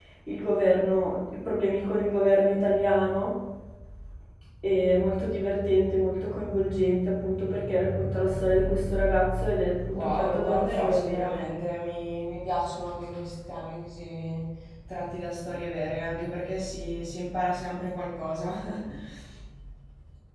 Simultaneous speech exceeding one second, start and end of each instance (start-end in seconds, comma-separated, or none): 9.9-11.3